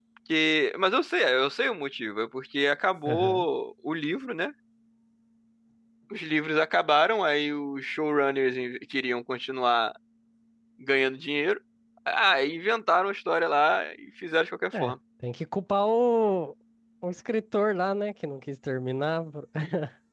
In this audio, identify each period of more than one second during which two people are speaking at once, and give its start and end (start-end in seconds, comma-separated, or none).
none